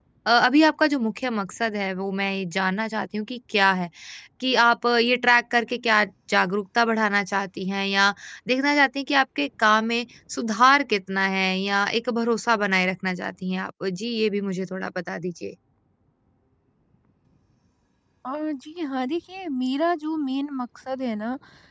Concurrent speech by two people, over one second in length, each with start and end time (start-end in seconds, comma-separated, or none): none